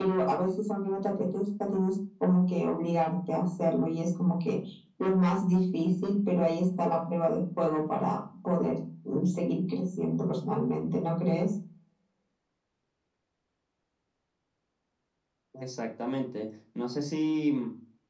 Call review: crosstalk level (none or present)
none